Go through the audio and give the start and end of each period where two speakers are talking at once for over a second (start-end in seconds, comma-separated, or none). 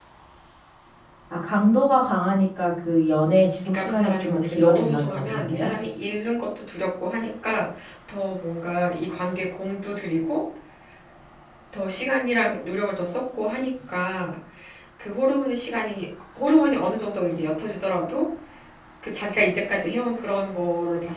3.6-5.7